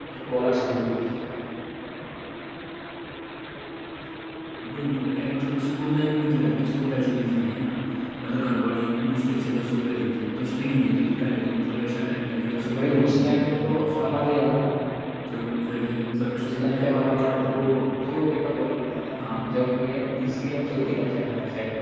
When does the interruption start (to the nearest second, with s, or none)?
13 s